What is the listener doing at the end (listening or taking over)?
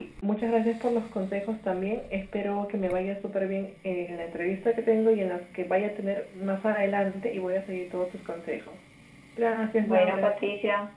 taking over